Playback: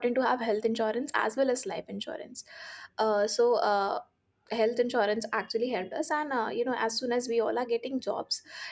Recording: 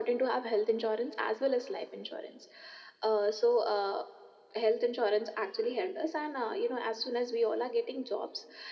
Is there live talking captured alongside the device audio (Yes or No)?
No